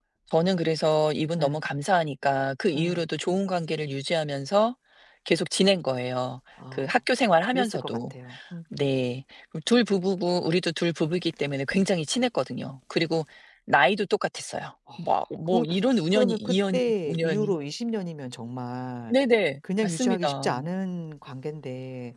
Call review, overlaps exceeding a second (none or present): present